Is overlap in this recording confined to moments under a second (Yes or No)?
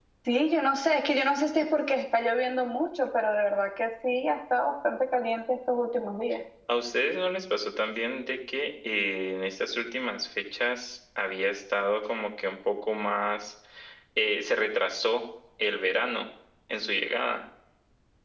Yes